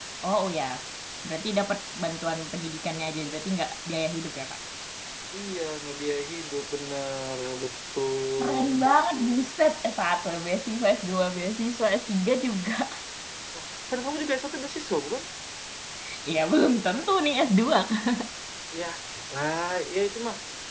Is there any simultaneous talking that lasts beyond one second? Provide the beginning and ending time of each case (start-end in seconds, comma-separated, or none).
none